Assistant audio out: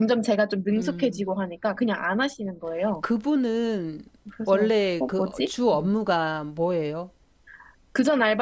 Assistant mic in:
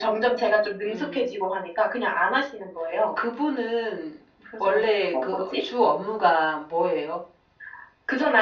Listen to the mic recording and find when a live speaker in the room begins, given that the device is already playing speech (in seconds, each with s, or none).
none